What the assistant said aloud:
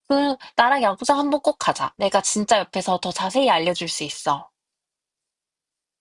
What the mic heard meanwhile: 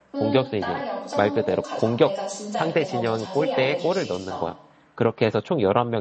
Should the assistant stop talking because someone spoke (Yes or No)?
Yes